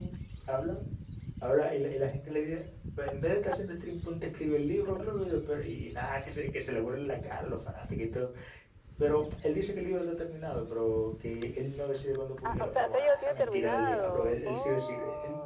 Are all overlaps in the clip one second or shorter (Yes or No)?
No